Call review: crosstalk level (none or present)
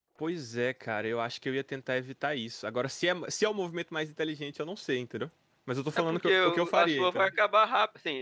present